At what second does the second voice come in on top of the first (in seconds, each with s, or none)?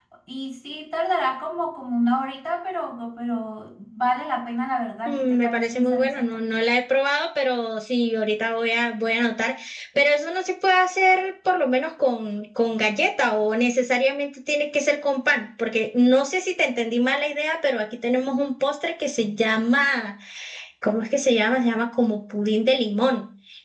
5.0 s